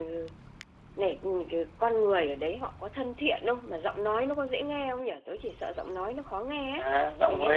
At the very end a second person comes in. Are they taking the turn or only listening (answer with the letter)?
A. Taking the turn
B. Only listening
A